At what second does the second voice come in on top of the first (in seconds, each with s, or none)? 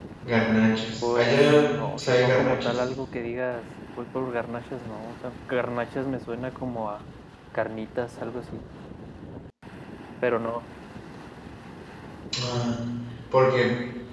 1.0 s